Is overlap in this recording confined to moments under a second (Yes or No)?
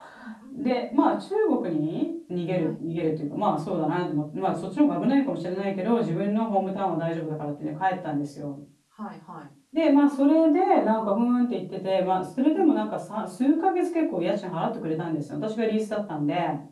Yes